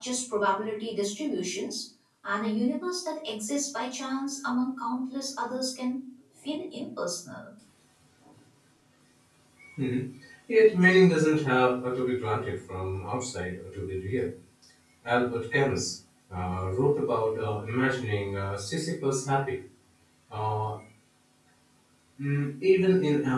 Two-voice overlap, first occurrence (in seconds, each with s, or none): none